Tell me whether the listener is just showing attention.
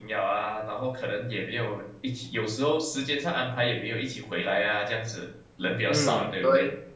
No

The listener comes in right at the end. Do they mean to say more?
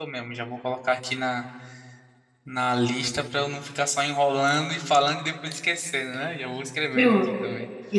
Yes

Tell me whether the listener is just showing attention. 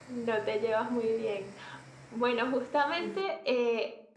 Yes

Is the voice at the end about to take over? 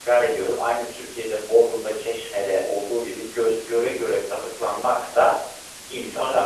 Yes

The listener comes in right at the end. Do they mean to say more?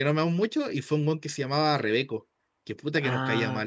Yes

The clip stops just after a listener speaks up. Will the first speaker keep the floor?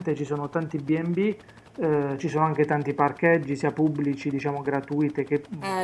No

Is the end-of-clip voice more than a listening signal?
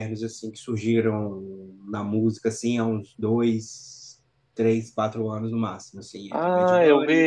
Yes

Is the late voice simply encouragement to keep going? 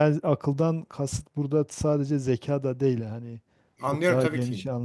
No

